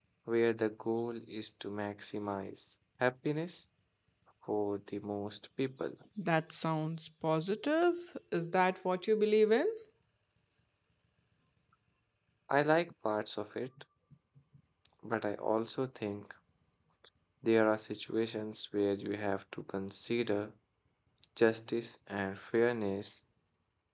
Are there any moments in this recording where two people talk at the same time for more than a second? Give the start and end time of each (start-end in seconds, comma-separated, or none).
none